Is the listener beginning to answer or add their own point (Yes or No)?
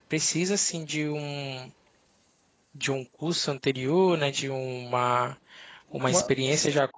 No